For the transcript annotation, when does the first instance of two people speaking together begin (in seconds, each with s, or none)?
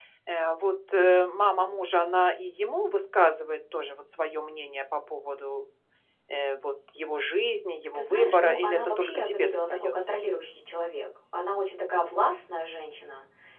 7.9 s